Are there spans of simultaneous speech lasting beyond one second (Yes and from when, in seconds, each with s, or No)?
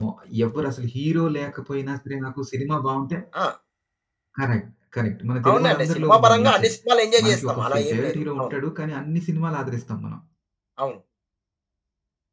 Yes, from 5.5 s